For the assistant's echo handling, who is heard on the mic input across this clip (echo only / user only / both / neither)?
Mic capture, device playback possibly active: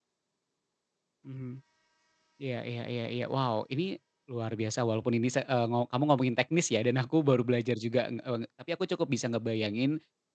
user only